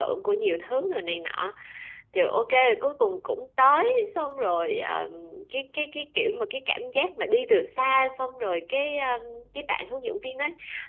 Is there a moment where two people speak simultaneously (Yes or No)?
No